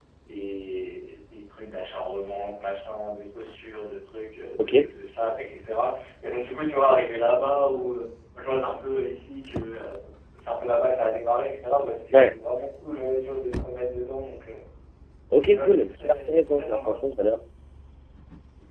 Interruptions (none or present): present